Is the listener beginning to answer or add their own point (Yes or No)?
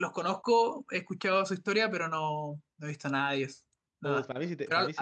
Yes